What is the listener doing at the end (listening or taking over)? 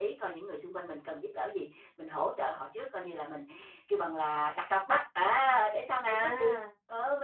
listening